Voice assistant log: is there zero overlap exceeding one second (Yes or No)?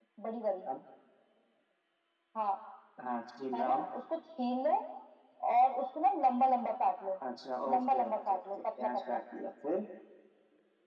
No